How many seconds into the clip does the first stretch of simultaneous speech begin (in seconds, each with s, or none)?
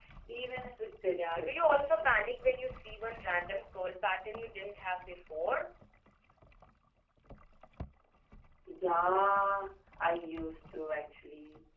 1.1 s